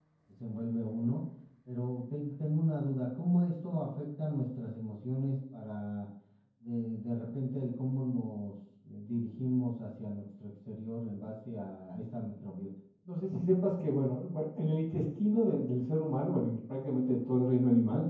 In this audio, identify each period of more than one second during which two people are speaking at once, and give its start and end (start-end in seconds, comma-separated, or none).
none